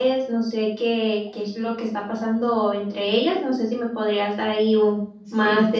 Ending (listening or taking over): taking over